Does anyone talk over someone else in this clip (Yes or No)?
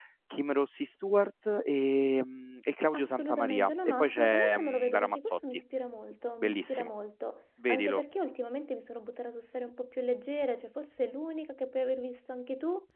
Yes